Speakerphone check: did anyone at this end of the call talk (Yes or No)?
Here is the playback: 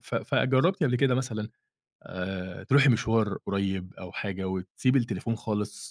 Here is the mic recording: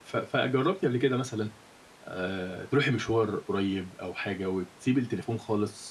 No